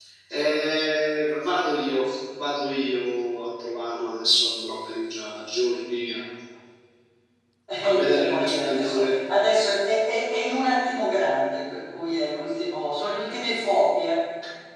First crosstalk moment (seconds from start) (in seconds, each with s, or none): 7.8 s